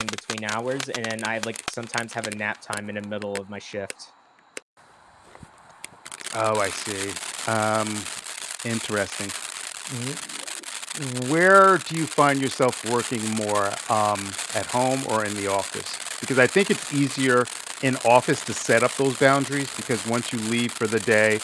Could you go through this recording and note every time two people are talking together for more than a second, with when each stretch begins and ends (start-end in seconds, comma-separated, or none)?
none